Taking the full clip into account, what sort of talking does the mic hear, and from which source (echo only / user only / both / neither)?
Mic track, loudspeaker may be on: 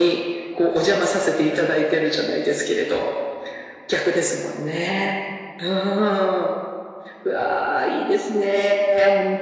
echo only